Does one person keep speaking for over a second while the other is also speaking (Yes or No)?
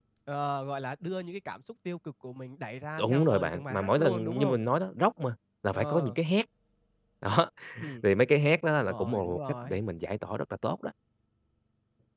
Yes